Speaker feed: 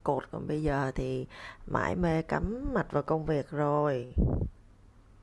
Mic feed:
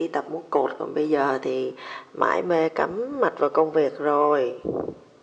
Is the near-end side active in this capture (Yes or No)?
No